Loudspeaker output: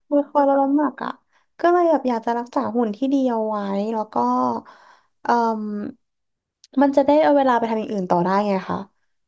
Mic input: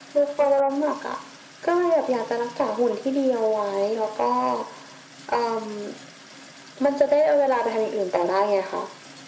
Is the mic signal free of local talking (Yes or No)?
Yes